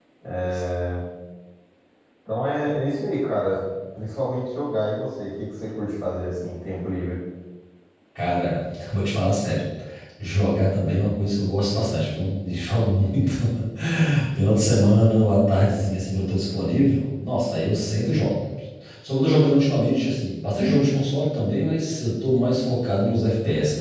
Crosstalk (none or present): none